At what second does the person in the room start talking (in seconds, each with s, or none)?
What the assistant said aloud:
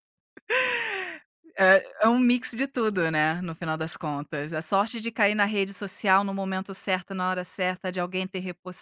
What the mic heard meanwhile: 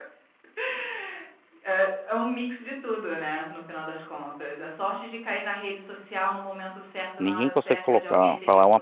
7.2 s